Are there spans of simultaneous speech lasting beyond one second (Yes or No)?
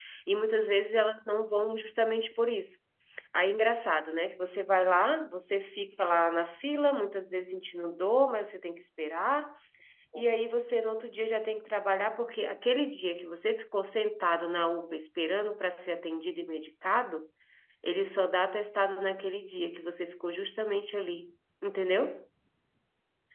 No